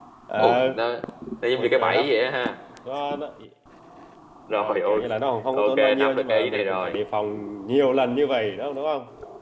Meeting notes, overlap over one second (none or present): present